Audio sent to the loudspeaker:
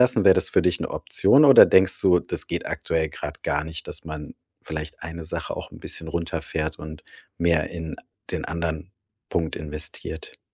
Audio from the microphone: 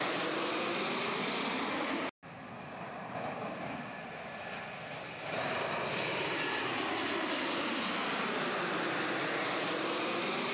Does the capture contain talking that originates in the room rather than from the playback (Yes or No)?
No